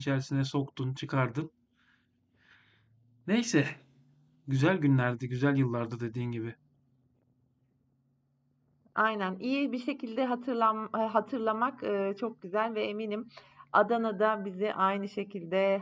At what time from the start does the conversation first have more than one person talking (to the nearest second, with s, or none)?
none